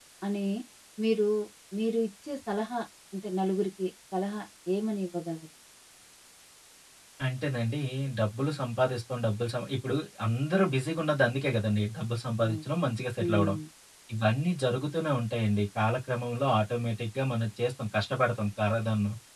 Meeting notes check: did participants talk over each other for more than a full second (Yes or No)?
No